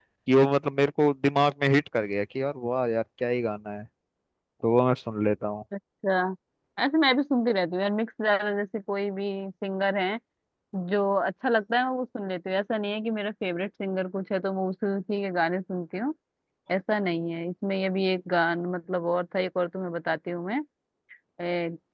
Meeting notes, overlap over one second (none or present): none